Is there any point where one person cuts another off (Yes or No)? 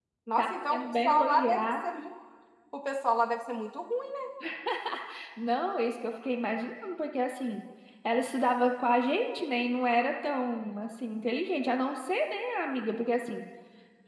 Yes